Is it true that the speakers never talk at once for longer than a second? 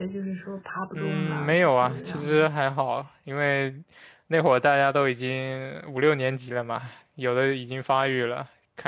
No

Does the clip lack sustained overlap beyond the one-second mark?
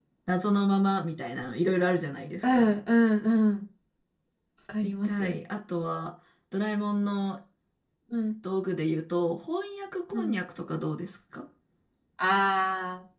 Yes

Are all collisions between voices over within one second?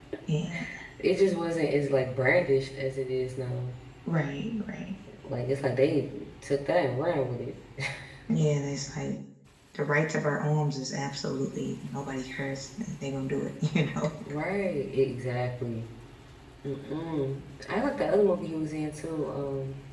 Yes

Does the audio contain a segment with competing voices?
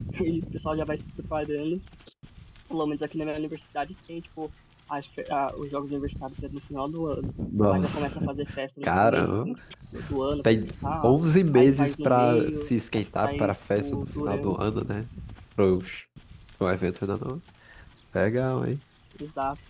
Yes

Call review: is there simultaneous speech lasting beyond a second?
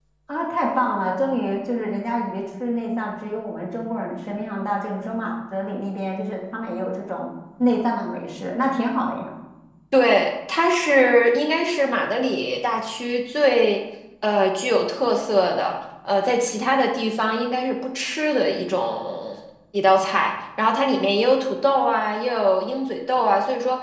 No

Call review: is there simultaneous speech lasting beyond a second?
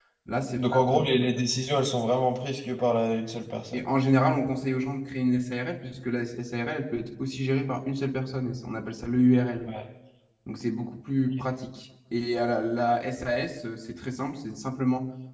No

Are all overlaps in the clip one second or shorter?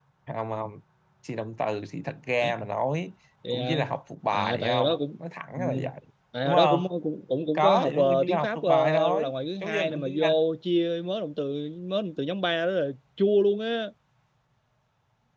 No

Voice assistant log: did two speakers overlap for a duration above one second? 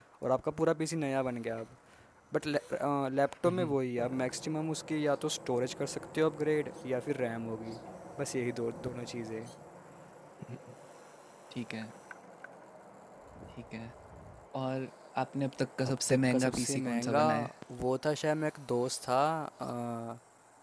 Yes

